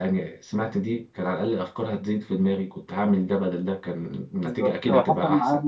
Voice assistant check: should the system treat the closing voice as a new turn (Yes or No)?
Yes